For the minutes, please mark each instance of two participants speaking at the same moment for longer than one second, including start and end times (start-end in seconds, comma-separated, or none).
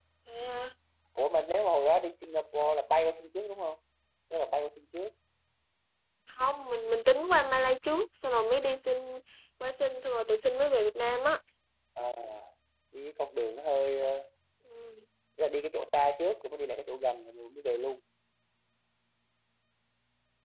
none